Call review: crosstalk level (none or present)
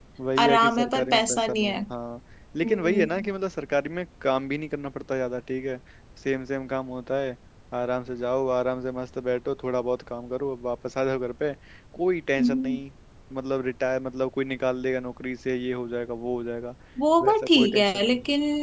present